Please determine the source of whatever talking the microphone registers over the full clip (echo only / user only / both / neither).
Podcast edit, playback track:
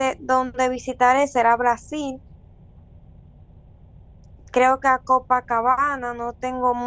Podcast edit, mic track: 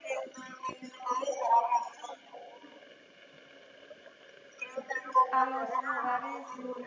both